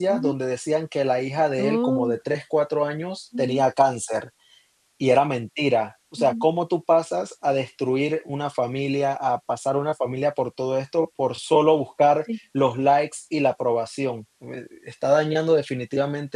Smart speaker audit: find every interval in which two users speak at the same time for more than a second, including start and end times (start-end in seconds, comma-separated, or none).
none